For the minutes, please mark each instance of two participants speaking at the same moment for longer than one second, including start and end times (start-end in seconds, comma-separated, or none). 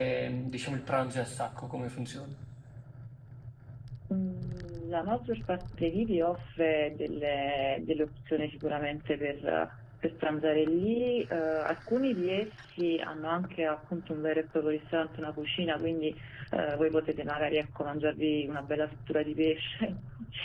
none